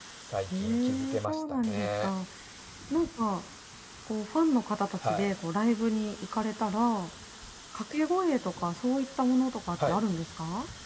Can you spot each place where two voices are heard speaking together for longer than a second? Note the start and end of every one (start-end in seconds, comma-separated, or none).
0.5-2.1